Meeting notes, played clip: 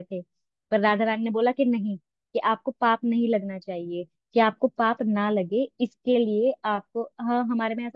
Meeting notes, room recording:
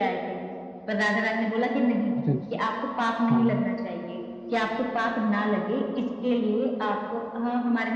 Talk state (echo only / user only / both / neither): both